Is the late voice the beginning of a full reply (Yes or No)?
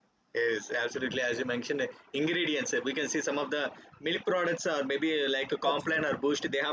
No